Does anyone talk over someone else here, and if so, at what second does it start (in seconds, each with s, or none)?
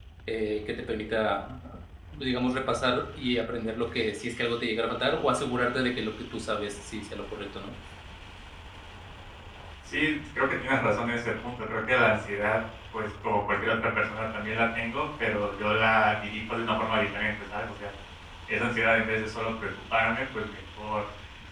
none